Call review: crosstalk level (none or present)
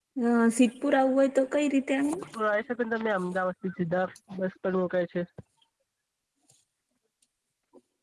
none